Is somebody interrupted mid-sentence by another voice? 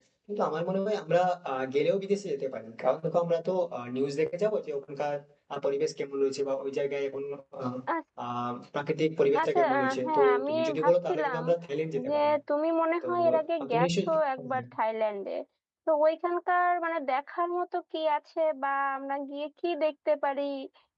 Yes, from 9.4 s

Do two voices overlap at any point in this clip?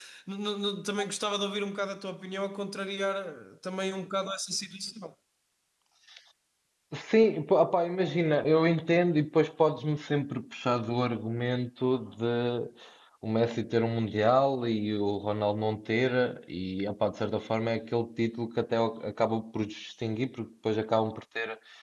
No

